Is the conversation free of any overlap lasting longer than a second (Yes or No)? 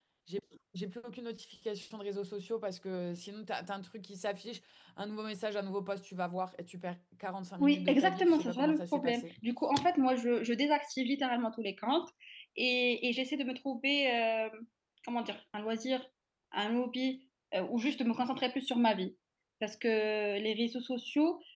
No